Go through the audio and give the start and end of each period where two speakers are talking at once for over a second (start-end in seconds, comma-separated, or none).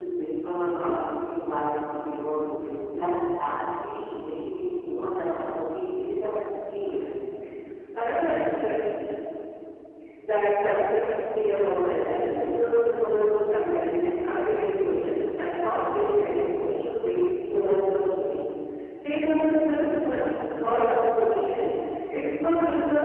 none